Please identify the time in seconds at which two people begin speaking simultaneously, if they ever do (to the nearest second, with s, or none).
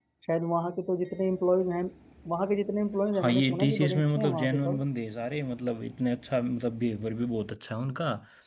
3 s